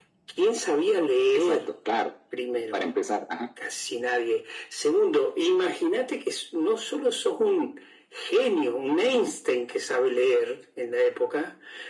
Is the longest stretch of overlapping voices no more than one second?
Yes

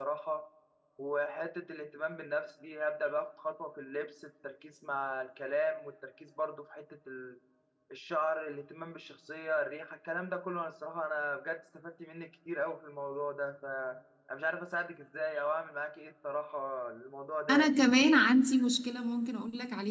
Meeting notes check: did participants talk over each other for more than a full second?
No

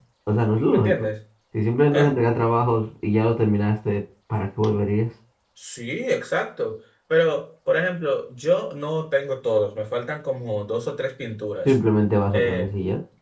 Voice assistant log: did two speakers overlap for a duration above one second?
No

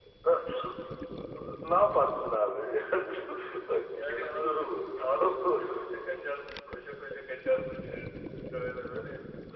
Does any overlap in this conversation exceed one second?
Yes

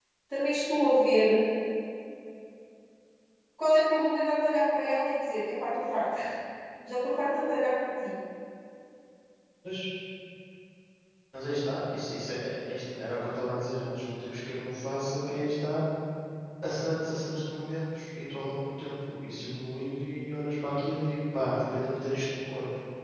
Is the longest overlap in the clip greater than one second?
No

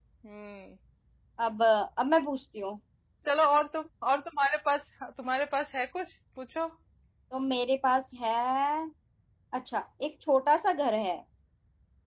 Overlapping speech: No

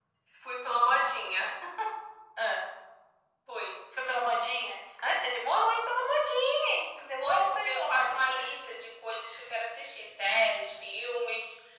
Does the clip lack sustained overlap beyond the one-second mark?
No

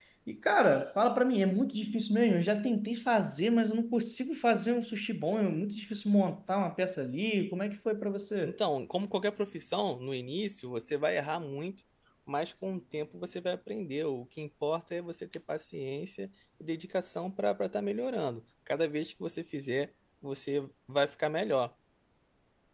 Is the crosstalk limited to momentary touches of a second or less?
Yes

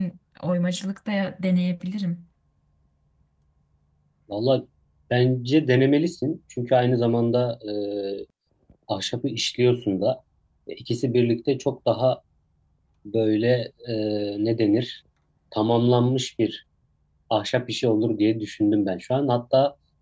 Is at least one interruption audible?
No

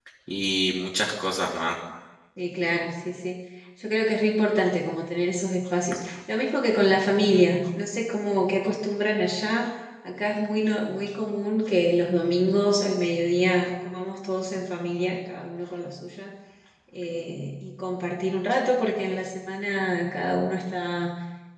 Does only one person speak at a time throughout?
Yes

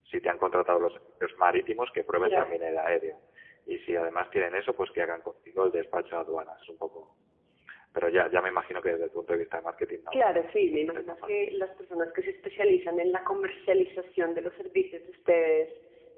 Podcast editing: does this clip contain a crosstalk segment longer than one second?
Yes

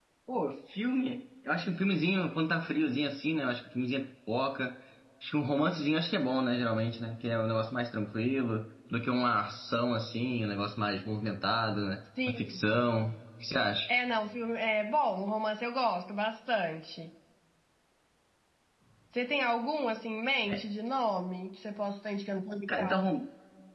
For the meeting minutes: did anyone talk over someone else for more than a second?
No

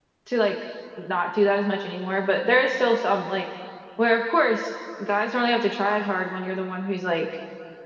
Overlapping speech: No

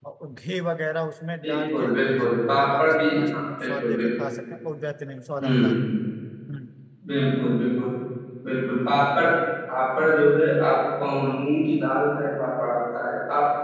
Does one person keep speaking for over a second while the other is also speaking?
Yes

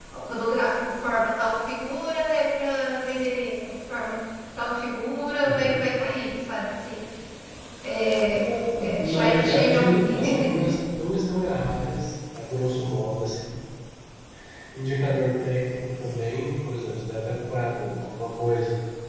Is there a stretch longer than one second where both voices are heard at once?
Yes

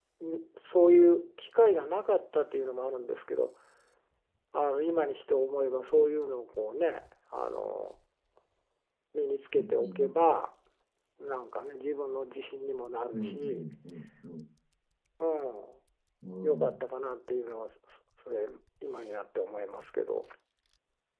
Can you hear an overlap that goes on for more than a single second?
No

